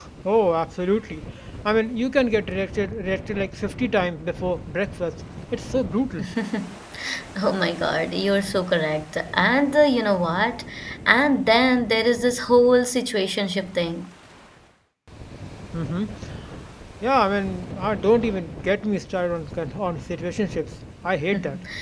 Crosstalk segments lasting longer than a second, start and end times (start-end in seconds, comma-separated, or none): none